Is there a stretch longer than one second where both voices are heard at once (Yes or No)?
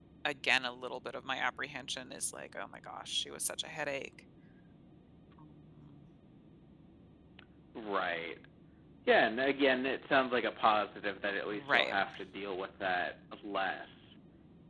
No